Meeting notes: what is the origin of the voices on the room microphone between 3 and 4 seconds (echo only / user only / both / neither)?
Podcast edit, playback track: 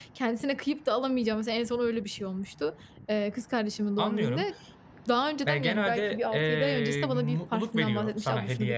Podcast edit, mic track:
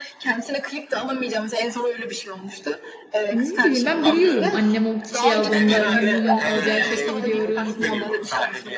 both